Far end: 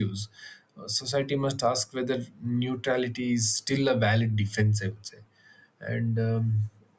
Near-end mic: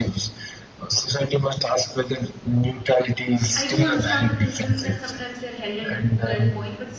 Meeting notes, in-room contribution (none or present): present